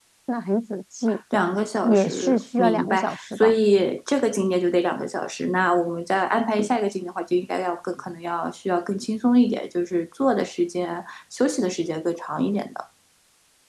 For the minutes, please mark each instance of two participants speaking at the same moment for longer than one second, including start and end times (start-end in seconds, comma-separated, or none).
1.8-3.5